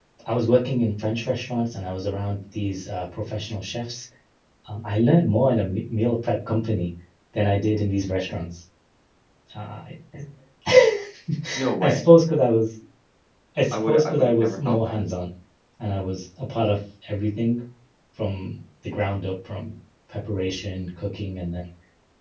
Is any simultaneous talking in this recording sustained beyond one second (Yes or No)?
Yes